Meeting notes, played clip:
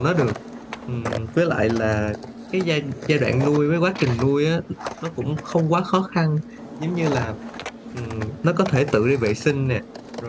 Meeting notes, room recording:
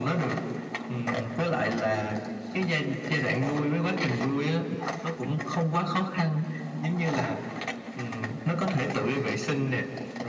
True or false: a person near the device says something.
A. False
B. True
A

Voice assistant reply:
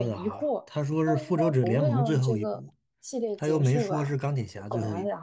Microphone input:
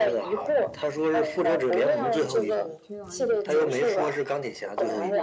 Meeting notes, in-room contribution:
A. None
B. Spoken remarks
B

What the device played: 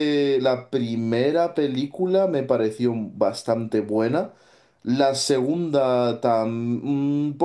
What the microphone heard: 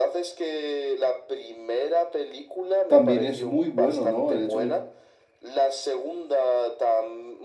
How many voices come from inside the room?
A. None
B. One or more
B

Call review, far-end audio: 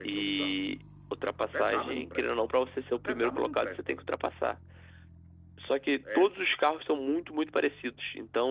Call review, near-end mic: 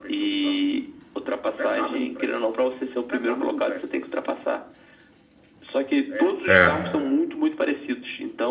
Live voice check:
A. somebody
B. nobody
A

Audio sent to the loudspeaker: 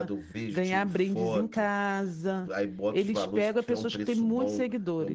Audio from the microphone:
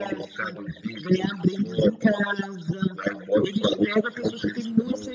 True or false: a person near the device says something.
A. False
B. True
A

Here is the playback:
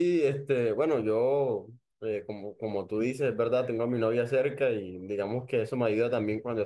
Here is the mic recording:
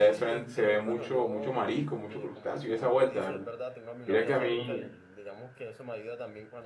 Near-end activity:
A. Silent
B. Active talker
B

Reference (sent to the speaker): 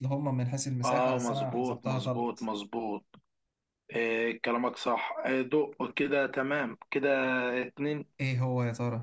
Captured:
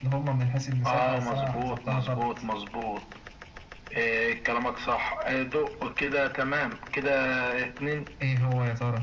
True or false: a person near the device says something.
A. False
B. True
A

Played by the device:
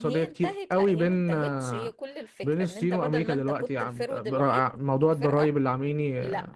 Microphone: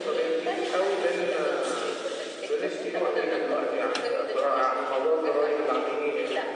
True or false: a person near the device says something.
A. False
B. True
A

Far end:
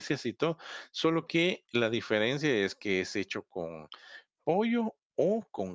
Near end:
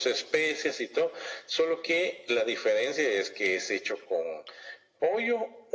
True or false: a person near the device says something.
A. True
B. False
B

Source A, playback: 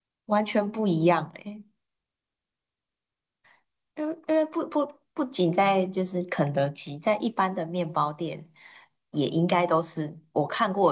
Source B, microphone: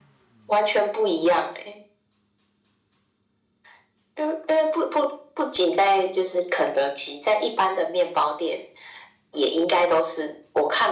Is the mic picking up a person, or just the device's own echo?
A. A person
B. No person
B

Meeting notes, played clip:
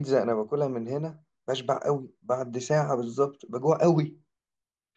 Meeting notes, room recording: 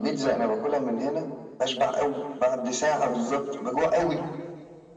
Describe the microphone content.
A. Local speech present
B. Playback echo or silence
B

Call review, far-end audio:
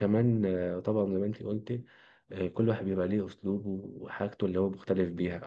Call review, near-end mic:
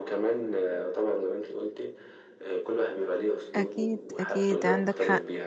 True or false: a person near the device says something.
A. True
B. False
A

